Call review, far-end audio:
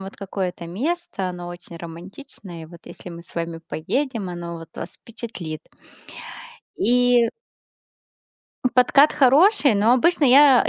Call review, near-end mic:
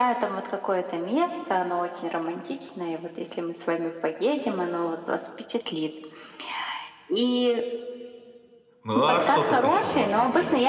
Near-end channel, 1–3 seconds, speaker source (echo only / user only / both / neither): echo only